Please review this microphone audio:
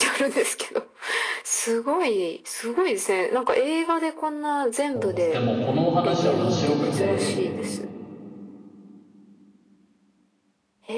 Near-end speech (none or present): present